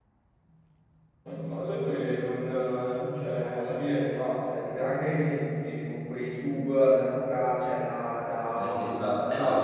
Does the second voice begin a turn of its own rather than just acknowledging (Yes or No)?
Yes